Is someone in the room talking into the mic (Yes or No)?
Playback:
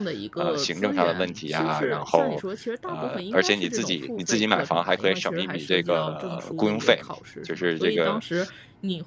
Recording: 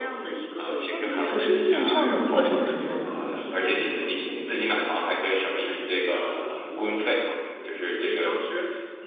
Yes